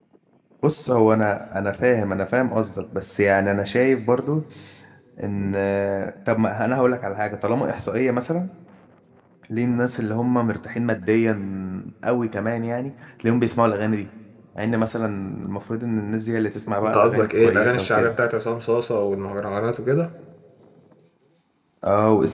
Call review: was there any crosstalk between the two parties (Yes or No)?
Yes